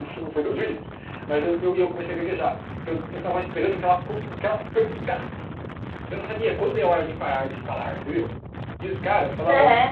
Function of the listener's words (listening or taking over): listening